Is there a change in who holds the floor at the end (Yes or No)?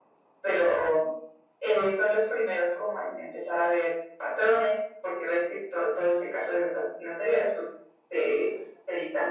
No